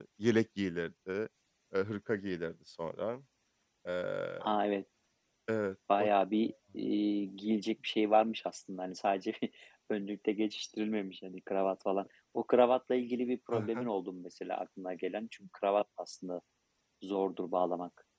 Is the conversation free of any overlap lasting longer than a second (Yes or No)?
Yes